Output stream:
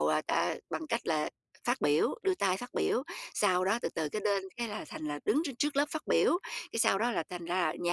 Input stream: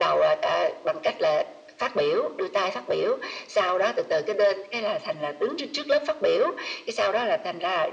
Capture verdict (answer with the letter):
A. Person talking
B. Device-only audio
B